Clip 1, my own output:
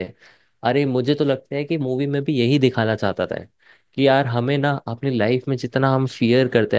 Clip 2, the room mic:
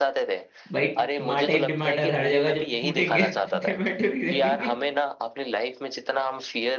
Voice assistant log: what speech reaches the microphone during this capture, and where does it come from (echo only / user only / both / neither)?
both